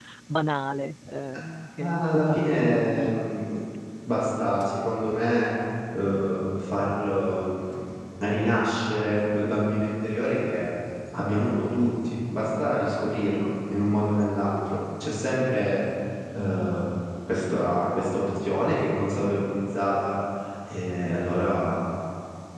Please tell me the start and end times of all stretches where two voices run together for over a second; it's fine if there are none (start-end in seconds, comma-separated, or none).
1.8-3.2